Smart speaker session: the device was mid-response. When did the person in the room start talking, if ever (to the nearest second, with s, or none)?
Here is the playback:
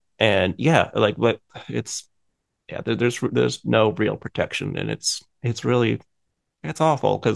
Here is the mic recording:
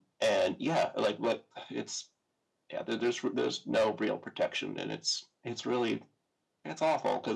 none